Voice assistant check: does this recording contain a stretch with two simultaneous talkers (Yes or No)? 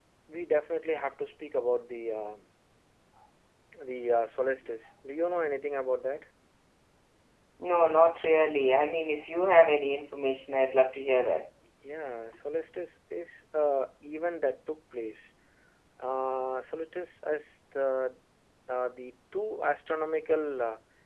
No